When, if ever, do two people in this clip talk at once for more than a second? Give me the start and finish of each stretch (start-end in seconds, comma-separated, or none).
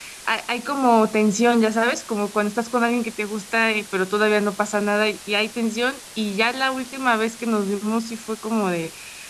none